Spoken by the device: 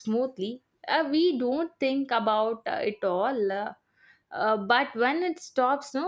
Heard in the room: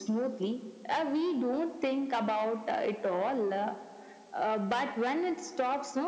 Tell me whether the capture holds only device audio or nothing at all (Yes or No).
Yes